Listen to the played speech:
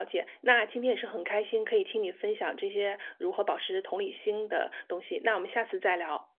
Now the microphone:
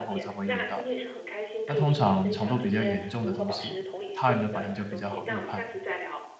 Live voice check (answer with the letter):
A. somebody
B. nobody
A